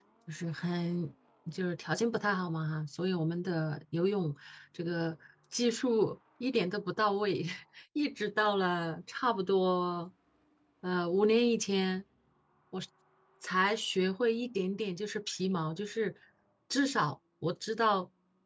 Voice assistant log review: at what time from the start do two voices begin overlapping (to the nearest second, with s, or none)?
none